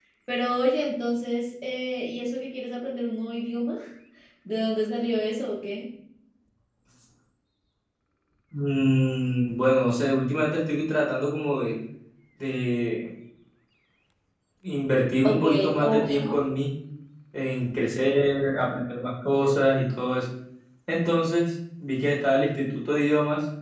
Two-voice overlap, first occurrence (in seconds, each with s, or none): 15.2 s